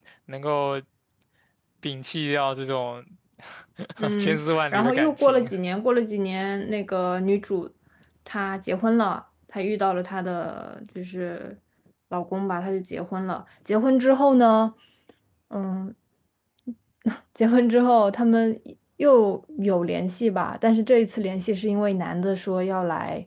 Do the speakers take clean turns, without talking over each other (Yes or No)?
No